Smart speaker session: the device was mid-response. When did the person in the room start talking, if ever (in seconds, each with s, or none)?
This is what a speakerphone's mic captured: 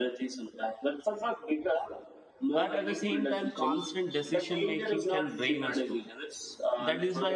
2.5 s